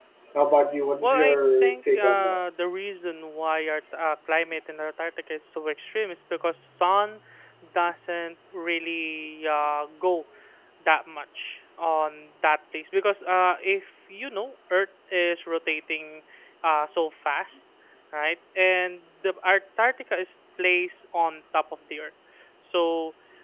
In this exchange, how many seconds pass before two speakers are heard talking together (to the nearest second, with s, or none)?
1 s